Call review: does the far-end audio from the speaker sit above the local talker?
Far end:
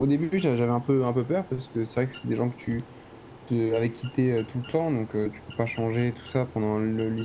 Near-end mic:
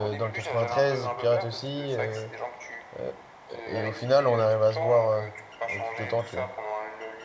No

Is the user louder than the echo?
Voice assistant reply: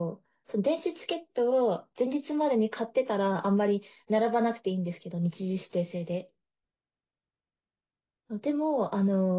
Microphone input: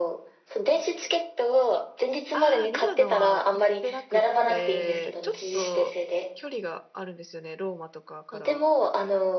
No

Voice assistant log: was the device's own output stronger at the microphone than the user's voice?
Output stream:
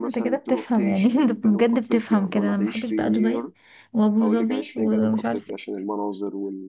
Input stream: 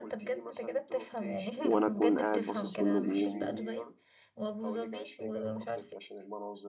No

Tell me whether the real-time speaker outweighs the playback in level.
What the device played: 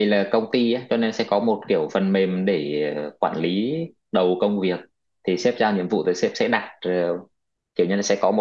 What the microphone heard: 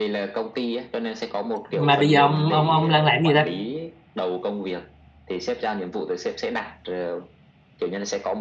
Yes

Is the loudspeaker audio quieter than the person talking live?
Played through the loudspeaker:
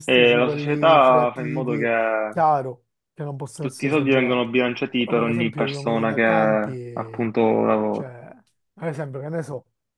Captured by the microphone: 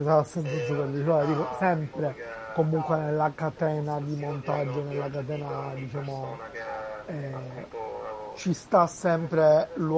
Yes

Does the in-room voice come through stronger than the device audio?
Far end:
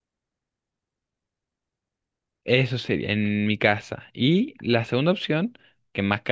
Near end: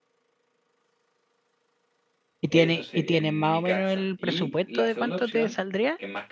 Yes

